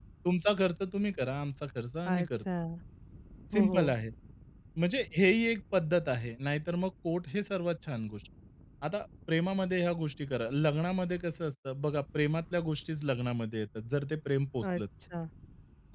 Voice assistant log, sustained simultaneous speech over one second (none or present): none